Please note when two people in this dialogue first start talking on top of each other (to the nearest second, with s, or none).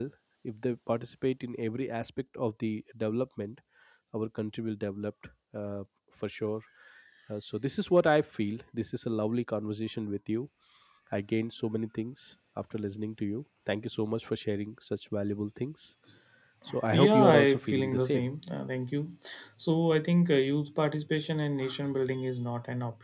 17 s